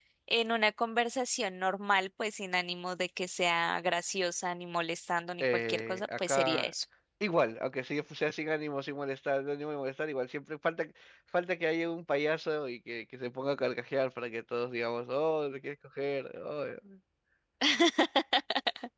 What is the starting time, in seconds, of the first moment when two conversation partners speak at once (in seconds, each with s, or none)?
5.4 s